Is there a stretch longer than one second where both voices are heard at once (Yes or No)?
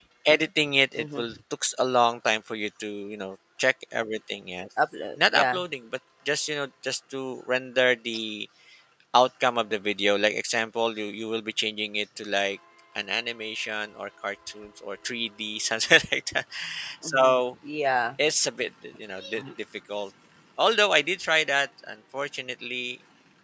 No